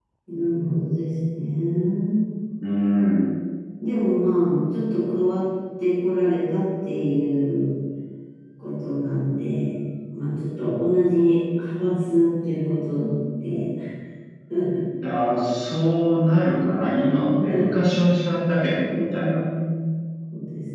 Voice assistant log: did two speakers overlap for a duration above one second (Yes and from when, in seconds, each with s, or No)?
No